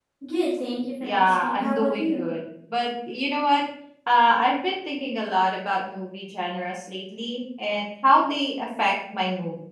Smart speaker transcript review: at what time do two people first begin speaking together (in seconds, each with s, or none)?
1.0 s